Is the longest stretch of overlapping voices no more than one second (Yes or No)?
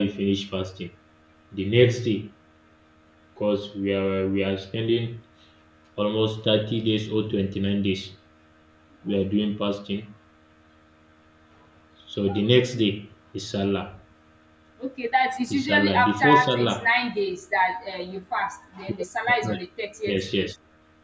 No